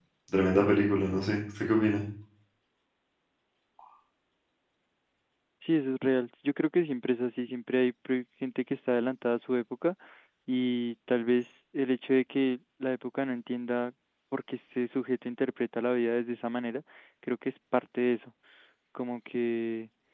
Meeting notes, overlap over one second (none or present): none